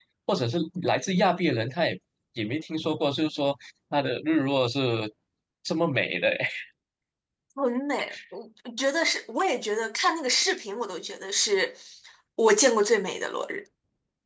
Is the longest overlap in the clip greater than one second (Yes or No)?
No